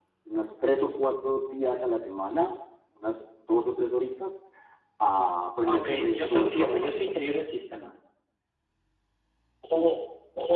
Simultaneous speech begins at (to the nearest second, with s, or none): 6 s